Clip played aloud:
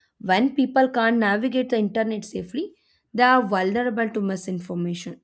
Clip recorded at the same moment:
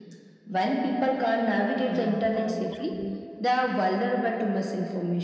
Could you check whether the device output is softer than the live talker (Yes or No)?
No